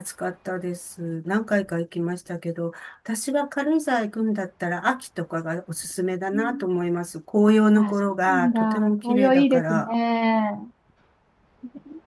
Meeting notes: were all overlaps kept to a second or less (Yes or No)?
No